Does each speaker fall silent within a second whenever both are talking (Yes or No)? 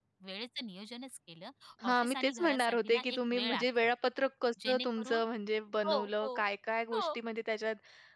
No